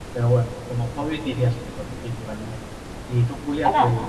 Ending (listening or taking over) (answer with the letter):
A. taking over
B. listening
A